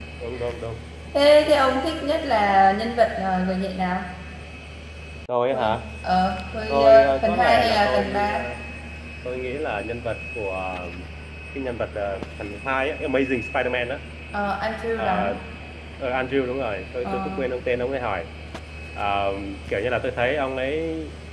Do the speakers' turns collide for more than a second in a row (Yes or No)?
Yes